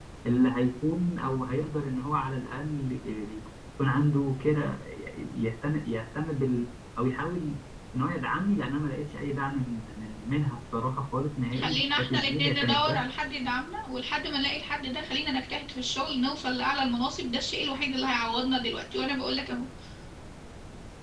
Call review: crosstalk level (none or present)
present